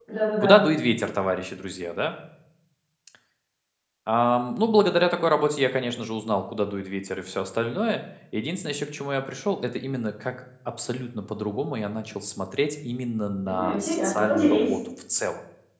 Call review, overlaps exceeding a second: present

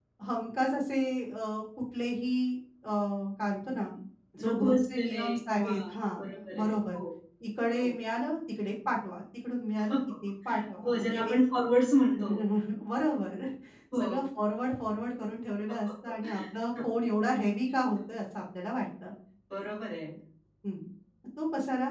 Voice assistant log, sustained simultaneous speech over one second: present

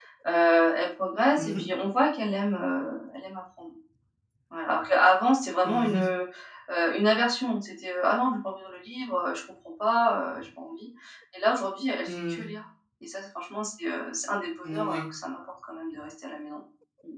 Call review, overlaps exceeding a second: none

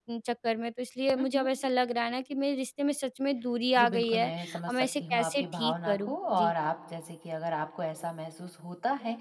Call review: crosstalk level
present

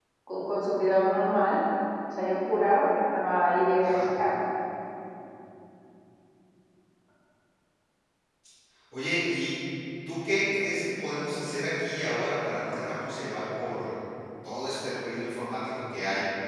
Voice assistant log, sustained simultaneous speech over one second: none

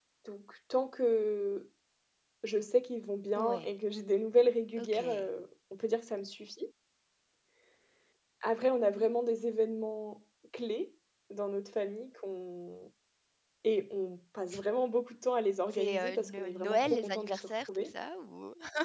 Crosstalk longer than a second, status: present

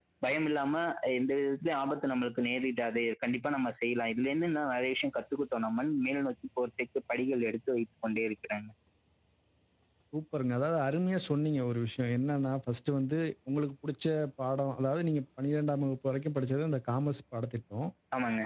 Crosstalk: none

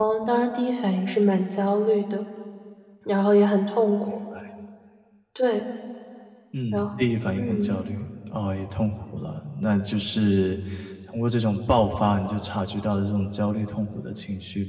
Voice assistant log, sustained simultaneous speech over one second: none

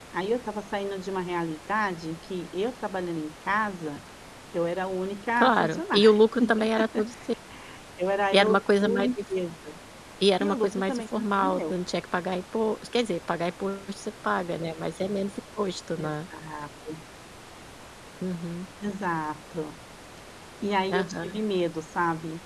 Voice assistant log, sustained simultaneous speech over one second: present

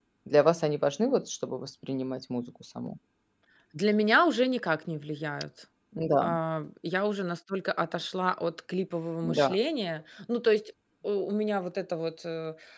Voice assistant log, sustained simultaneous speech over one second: none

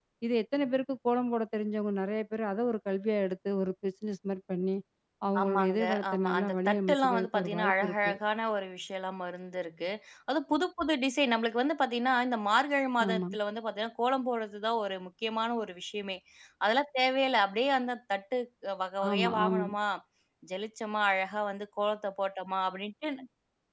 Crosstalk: present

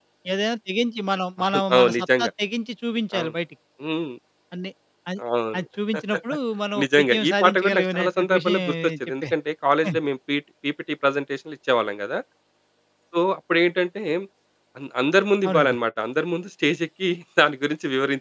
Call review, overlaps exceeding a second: present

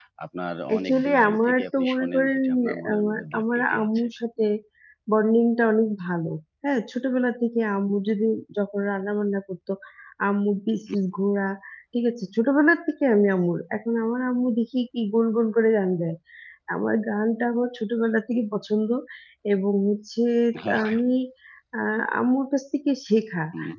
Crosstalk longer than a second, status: present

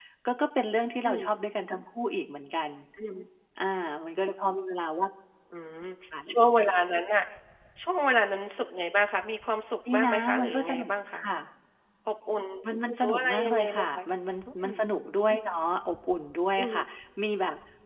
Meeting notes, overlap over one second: present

